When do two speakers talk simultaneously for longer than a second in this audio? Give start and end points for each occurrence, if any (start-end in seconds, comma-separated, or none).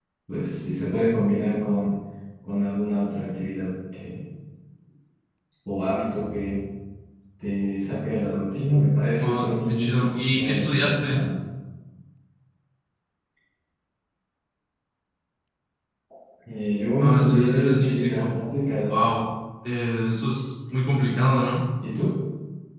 9.2-11.2, 17.0-18.3